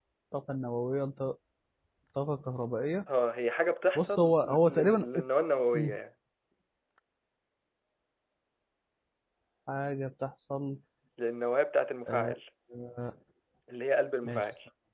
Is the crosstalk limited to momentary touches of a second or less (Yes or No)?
No